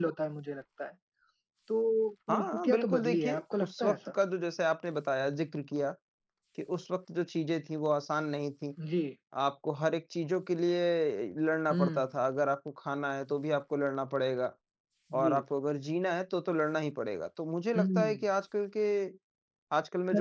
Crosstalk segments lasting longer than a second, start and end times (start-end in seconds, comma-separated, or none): 2.3-4.0